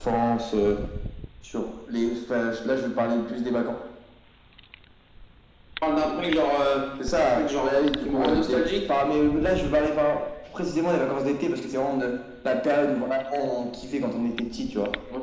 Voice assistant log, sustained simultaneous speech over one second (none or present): present